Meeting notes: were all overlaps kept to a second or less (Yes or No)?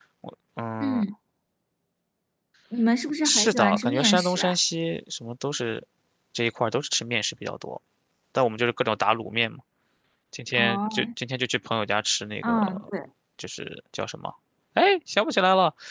No